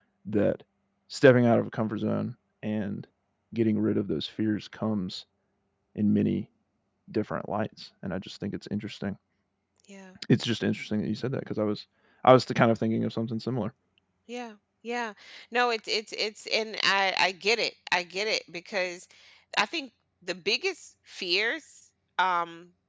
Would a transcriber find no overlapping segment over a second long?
Yes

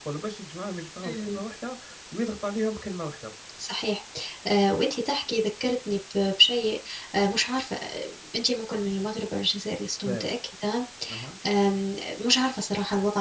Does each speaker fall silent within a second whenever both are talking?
Yes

